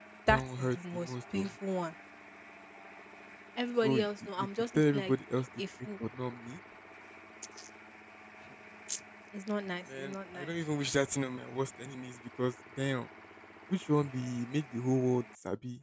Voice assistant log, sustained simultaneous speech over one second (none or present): present